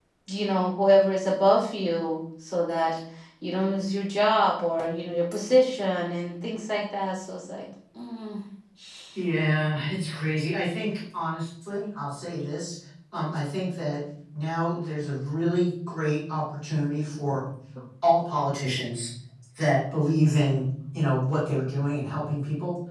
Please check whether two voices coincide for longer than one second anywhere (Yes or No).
No